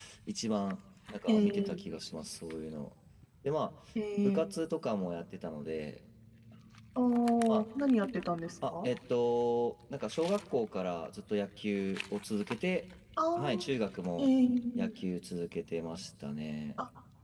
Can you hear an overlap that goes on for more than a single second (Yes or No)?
No